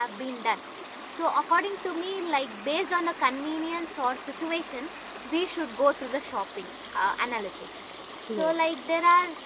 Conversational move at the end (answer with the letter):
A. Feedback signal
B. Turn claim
A